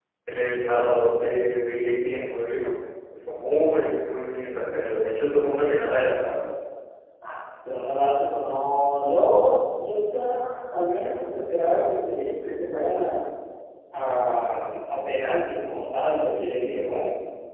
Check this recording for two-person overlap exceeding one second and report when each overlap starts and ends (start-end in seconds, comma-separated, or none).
none